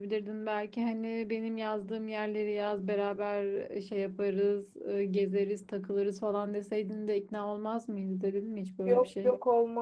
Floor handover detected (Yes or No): Yes